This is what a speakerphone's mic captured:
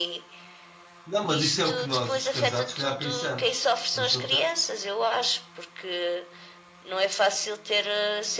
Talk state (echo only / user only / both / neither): both